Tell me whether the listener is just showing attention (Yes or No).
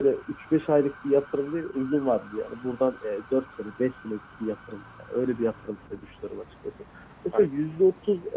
Yes